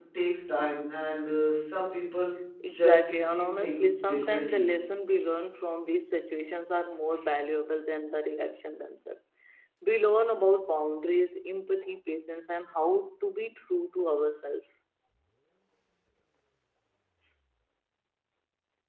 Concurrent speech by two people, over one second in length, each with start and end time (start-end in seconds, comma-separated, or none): 2.7-4.7